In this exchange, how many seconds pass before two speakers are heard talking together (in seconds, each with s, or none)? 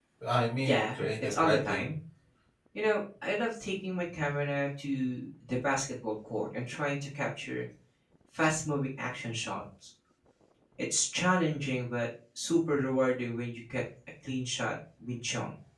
0.6 s